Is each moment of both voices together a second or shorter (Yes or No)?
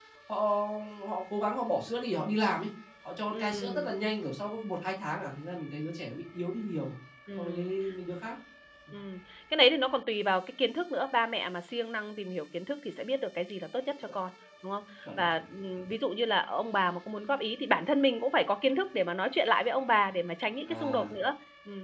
Yes